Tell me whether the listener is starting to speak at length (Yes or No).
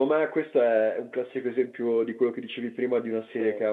No